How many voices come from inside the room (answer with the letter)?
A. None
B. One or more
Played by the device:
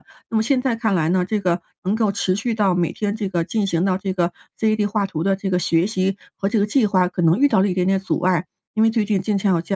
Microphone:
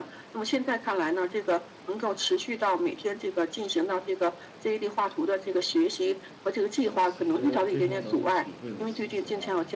B